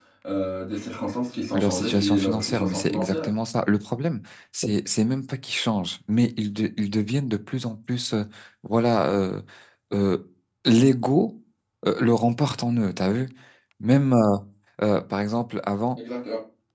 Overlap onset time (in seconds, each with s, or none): 1.5 s